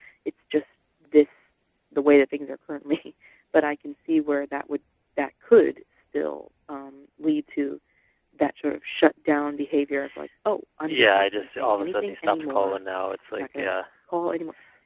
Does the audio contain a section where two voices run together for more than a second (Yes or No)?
Yes